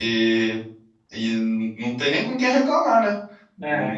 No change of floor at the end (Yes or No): Yes